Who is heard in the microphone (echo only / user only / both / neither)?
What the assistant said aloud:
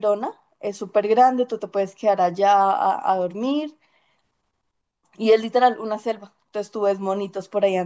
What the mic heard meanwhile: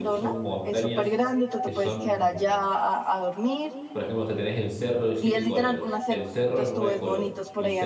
both